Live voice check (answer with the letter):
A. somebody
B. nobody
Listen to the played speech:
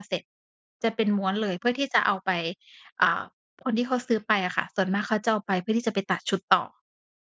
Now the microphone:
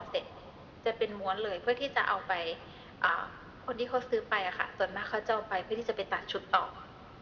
B